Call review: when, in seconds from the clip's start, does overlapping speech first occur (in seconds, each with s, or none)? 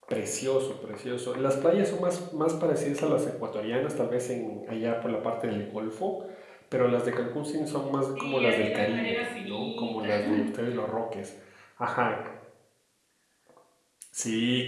8.2 s